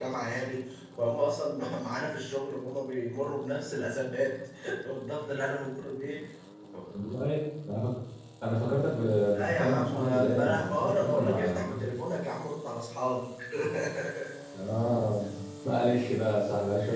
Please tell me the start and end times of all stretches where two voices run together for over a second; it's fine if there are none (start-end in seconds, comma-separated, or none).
9.4-11.6